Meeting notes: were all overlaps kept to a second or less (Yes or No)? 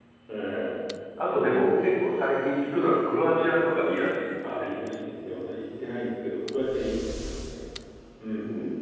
Yes